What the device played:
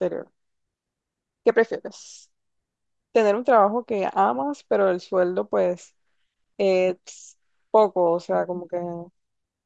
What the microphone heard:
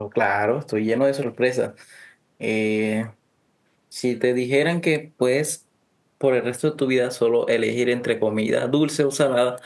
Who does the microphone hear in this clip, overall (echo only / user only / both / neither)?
user only